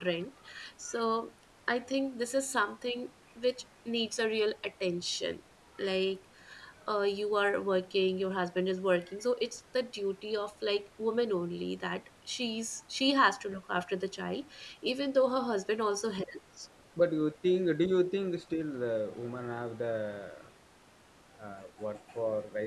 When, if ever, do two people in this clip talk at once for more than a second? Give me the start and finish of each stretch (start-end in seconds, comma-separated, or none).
none